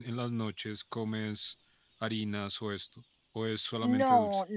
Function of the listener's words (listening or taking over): taking over